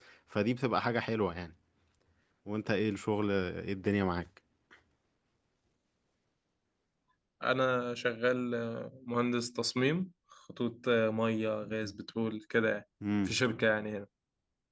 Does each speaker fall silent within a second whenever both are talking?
Yes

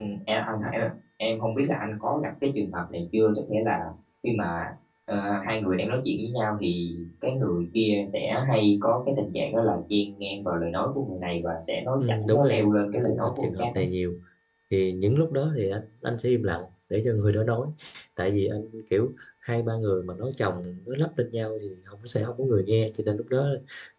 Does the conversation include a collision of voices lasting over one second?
Yes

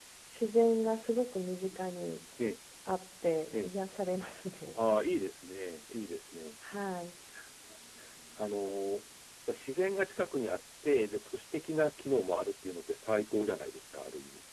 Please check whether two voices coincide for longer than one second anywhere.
No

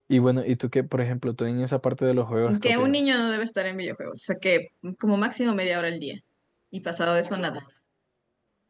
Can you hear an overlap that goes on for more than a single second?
No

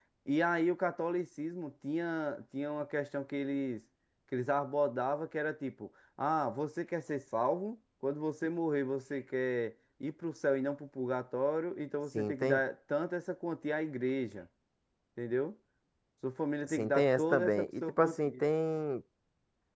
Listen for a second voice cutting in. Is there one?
Yes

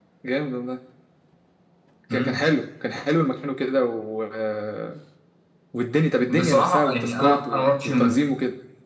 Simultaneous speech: Yes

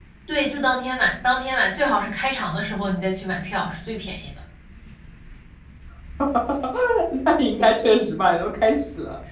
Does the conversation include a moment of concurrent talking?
No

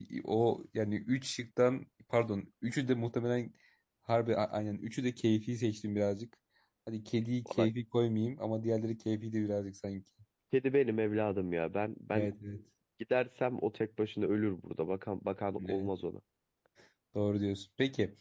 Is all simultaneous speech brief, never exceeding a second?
Yes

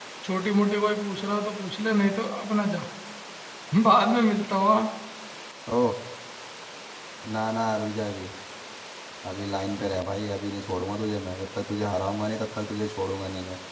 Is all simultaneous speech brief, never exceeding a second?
Yes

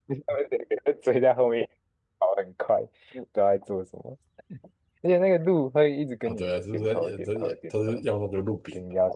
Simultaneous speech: Yes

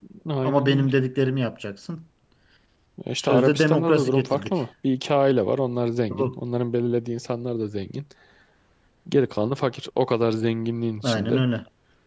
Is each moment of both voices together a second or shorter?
No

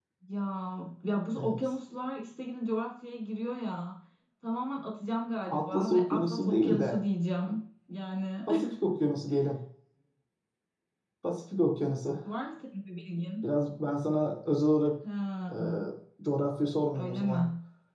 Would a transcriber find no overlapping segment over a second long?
No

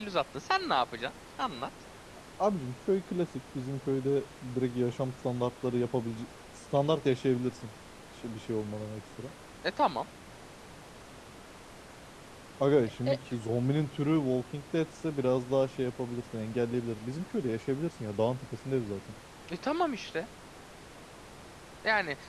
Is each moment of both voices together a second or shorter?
Yes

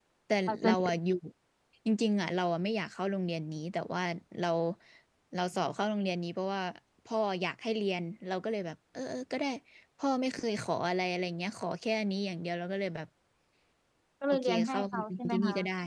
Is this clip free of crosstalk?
No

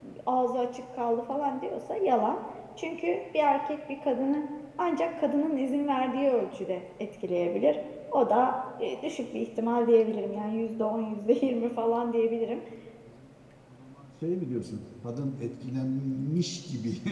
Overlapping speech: No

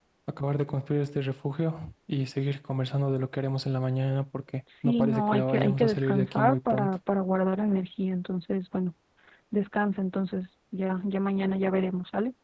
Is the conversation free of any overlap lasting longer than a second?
No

